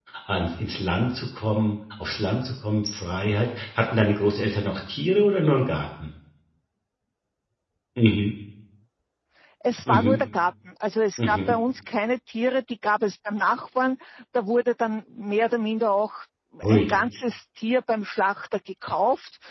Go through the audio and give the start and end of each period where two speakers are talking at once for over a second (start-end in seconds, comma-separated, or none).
none